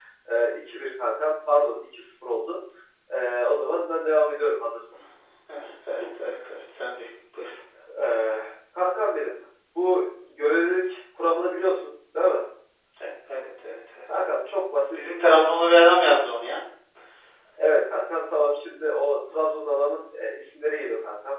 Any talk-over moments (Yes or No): No